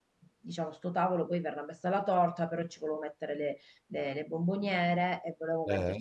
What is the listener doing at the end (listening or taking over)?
listening